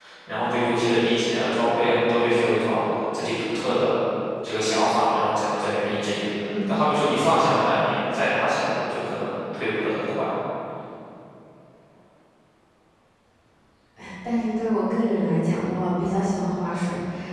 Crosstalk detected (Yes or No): No